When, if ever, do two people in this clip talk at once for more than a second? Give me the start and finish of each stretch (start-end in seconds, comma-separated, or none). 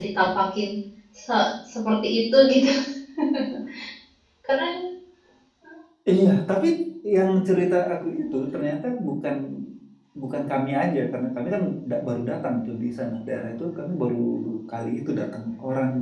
none